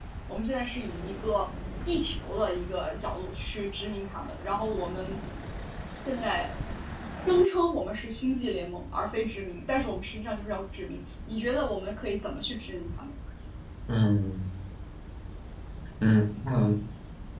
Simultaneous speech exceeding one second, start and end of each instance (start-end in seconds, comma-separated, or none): none